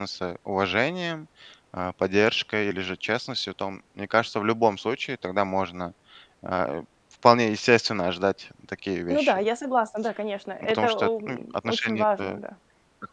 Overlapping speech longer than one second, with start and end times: 10.6-12.4

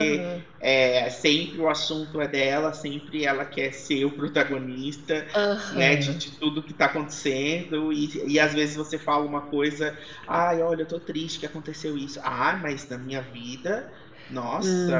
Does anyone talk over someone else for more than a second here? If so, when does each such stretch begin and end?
none

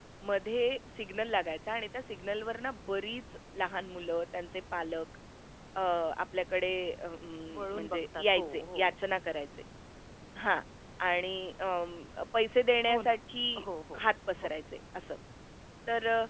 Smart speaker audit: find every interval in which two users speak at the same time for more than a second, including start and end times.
7.5-8.8

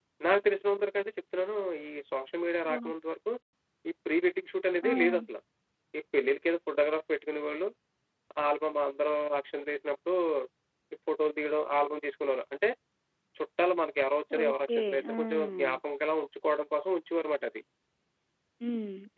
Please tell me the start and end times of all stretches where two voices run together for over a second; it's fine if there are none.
14.4-15.8

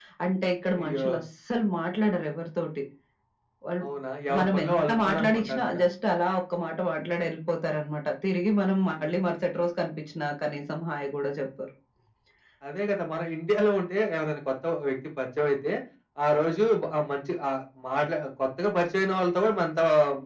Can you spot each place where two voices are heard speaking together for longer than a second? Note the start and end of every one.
4.4-5.8

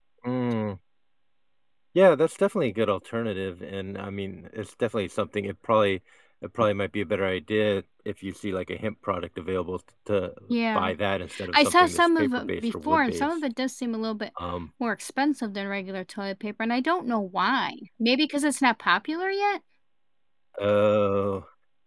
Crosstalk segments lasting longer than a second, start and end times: 11.5-13.3

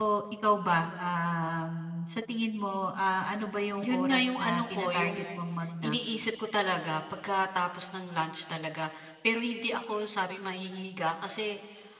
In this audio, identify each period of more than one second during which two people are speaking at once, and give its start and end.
3.8-5.4

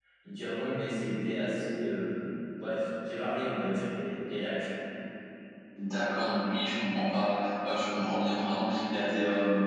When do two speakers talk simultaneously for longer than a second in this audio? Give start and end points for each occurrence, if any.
none

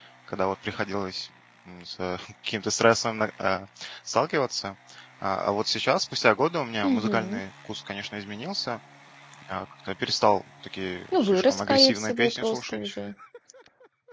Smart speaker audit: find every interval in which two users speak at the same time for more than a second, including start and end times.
11.1-12.9

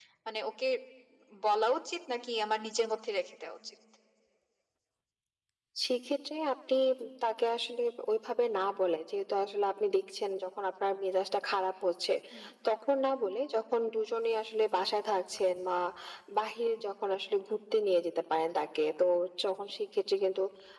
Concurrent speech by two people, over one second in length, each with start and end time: none

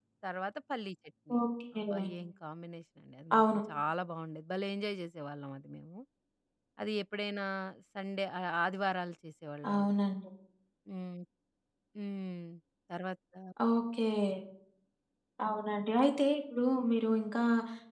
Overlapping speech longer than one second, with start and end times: none

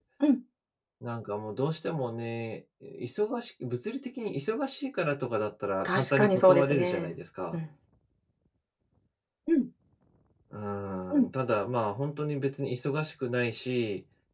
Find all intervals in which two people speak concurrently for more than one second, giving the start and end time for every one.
5.8-7.1

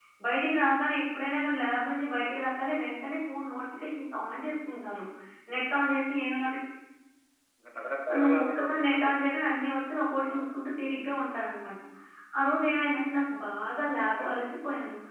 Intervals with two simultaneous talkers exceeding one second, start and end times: 8.1-9.6

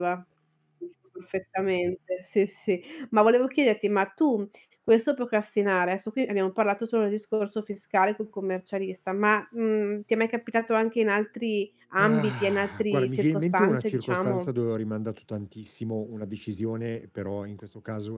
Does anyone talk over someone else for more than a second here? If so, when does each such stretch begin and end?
12.0-14.5

